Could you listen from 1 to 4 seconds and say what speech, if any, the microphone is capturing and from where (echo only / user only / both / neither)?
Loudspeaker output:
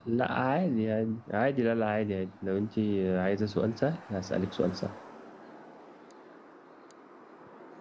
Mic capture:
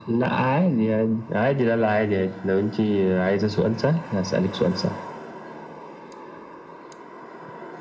echo only